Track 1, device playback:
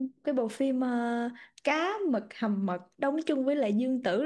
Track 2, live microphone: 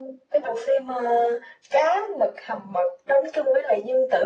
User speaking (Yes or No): No